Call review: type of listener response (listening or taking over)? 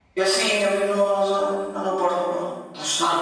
taking over